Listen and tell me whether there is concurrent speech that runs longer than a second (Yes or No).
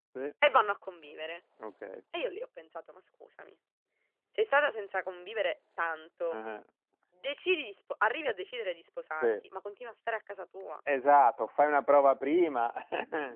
No